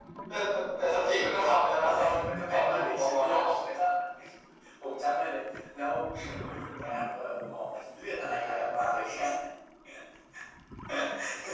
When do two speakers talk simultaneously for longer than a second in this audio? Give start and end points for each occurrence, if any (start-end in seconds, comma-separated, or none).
1.9-3.4